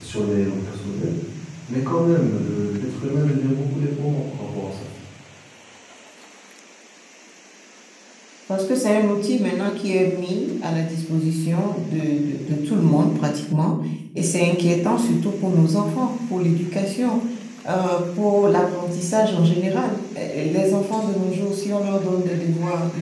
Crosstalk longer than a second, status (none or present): none